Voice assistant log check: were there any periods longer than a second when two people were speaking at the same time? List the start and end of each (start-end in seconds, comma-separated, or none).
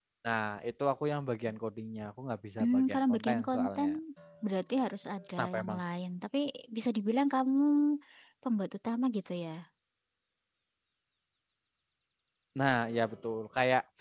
2.6-3.9